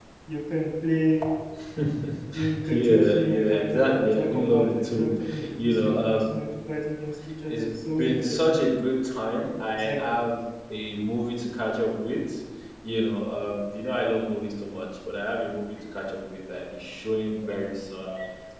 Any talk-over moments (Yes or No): Yes